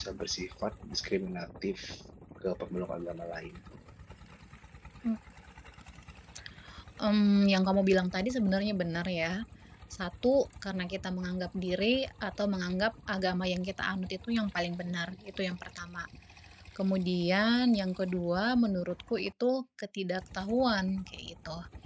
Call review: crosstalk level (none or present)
none